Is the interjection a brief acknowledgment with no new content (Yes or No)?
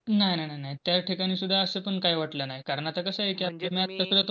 Yes